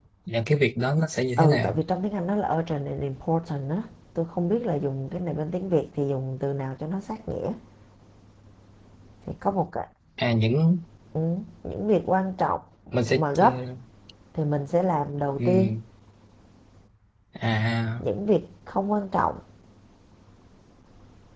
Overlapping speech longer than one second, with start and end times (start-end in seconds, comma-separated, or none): none